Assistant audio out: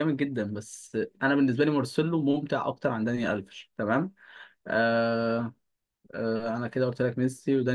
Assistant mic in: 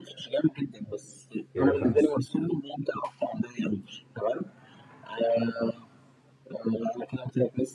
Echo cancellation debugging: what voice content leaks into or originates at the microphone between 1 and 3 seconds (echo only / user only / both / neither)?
both